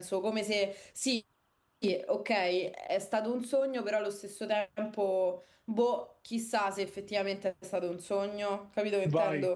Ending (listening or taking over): taking over